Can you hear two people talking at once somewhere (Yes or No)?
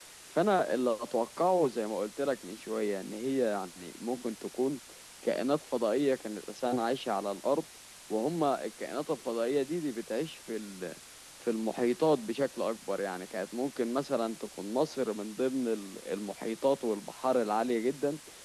No